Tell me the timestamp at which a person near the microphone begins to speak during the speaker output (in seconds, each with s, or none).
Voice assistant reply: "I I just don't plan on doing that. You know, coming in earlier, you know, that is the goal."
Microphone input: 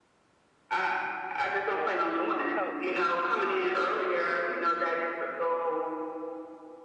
1.7 s